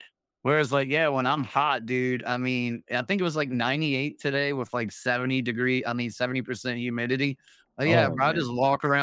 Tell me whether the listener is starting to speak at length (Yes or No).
No